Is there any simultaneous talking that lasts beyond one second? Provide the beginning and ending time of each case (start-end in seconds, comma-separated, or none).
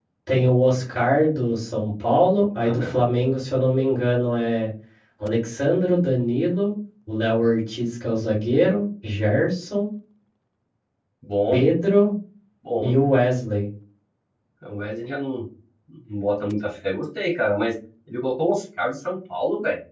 none